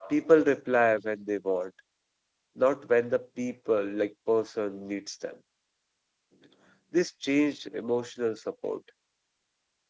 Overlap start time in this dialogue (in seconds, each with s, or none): none